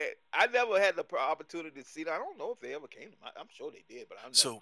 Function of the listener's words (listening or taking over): taking over